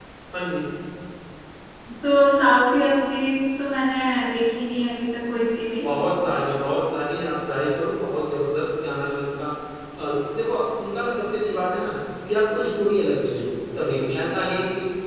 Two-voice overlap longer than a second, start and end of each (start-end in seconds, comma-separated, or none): none